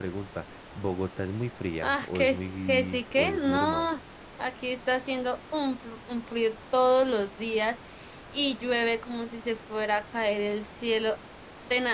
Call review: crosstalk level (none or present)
present